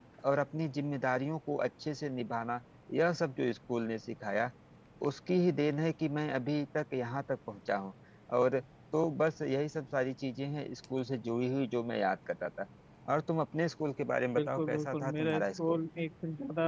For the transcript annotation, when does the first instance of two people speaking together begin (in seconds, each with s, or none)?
14.4 s